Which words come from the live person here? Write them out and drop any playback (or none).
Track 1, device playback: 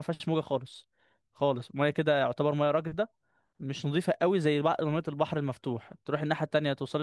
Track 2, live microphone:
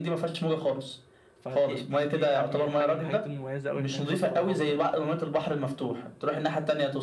فدي دي دي يعني حاجه من الحاجات المميزه قوي هناك شاطئ الغرام ده